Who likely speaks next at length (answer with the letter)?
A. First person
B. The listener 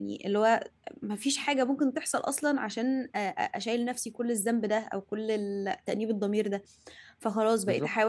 A